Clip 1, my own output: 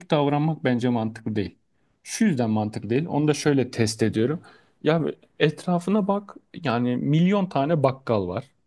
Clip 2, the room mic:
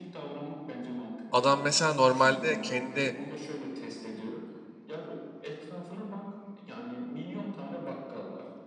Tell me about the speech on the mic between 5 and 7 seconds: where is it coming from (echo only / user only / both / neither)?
echo only